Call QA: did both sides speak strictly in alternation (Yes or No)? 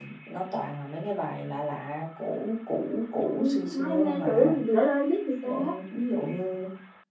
No